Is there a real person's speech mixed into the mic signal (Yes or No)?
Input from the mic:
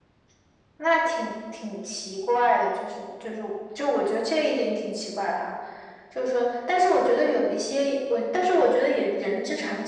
No